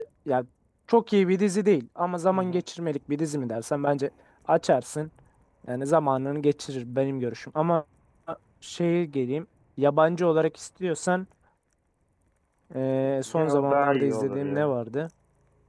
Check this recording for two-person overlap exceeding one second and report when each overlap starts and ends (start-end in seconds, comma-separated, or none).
13.2-14.8